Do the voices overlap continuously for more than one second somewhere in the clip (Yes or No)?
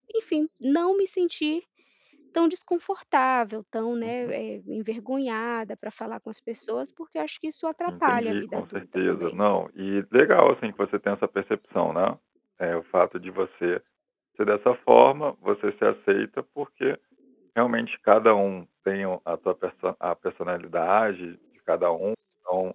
Yes